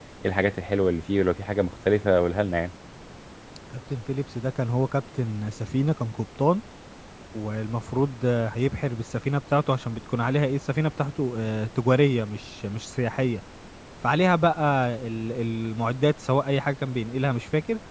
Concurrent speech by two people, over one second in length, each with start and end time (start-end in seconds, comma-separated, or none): none